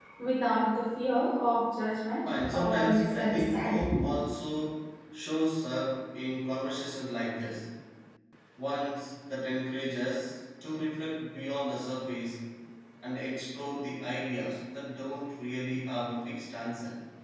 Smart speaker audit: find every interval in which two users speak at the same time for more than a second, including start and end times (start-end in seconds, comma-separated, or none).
2.4-3.9